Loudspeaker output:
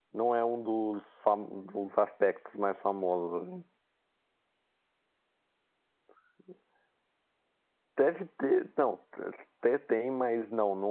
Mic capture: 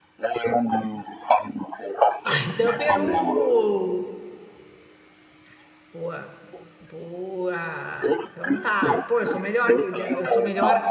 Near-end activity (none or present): present